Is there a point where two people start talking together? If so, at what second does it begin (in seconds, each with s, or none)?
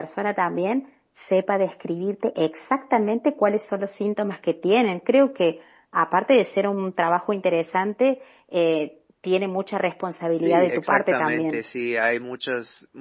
10.4 s